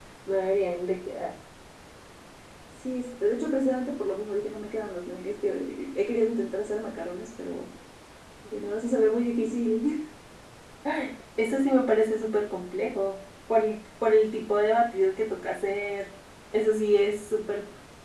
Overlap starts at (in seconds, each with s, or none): none